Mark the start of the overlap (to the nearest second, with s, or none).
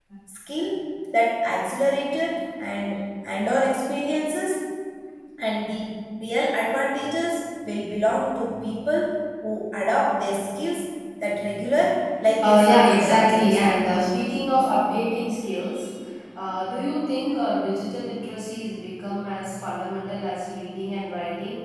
12 s